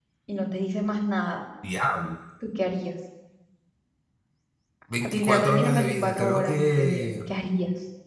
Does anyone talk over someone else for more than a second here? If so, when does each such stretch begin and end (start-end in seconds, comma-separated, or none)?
5.0-7.1